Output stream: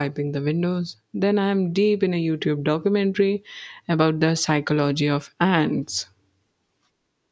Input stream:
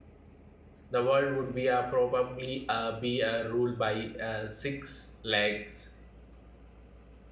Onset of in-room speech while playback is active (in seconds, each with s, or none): 0.9 s